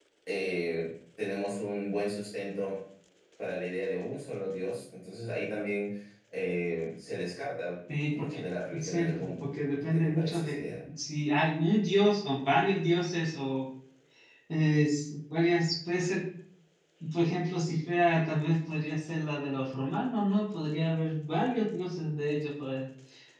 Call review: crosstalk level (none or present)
present